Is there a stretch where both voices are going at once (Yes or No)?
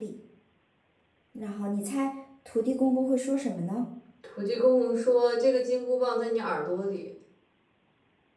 No